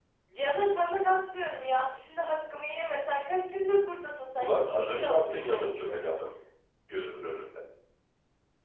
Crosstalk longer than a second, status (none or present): present